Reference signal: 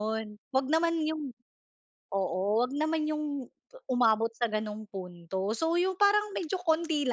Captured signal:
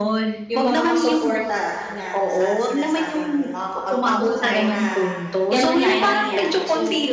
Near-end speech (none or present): present